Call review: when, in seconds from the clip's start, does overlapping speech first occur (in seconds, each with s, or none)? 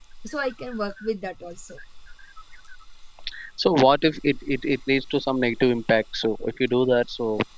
none